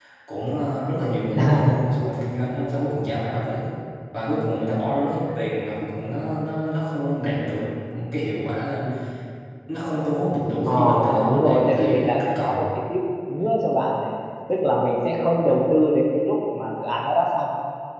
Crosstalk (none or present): present